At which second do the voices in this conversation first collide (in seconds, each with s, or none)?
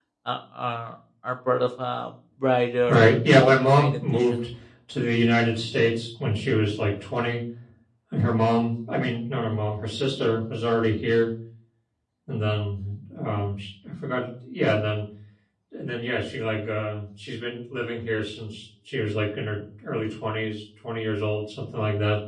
2.9 s